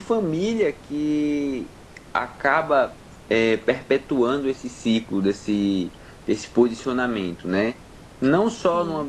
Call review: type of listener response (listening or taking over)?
listening